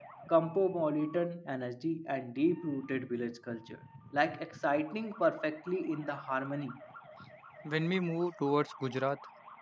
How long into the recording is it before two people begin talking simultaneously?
none

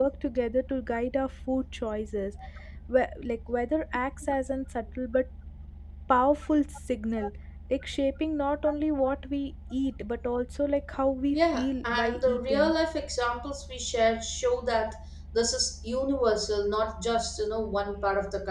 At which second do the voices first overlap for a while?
11.3 s

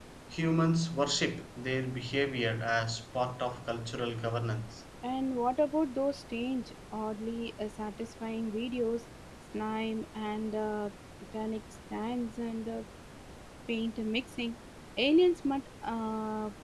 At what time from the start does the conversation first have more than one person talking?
none

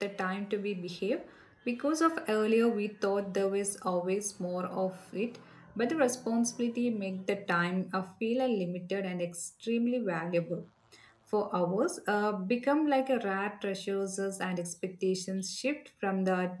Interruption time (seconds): none

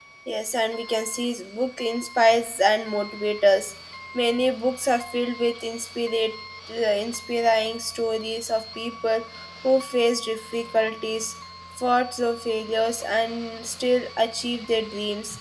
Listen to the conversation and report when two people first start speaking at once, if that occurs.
none

